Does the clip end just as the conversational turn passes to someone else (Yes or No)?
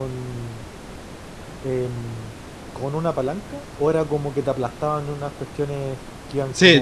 Yes